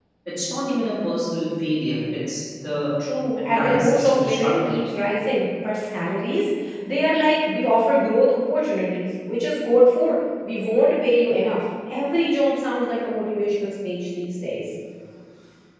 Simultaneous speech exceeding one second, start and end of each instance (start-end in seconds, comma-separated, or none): 3.4-4.7